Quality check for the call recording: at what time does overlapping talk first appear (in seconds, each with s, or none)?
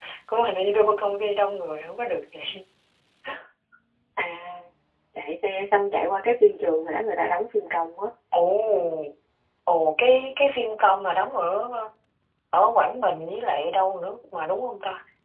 none